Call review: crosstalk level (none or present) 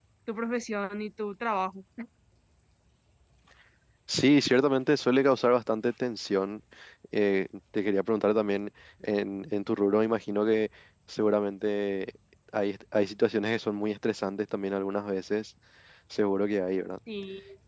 none